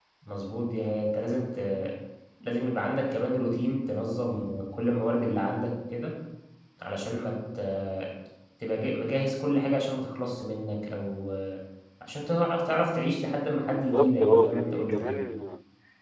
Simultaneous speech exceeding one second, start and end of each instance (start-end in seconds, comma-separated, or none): 13.7-15.2